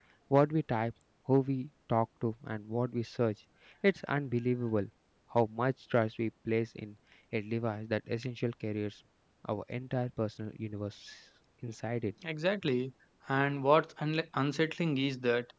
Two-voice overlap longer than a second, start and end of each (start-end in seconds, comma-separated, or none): none